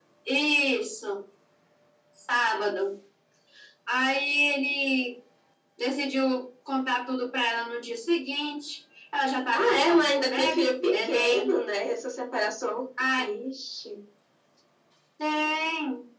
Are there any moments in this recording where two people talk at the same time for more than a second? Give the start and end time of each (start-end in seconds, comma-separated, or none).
9.5-11.5